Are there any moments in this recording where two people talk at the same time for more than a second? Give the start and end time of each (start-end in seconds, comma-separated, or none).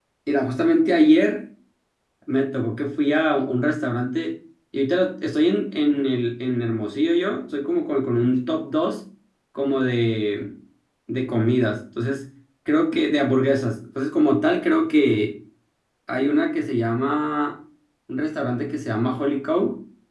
none